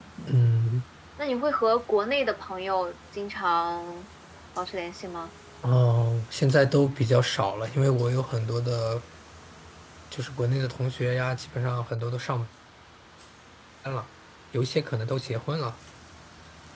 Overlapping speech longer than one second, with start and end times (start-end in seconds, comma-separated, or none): none